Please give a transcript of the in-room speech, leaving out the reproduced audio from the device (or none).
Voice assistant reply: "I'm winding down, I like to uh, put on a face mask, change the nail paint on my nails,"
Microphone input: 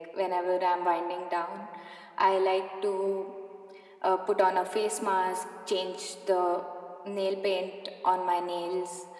none